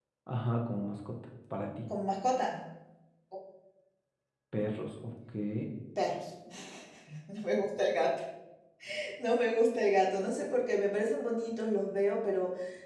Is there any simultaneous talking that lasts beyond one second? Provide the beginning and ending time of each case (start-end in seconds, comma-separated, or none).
none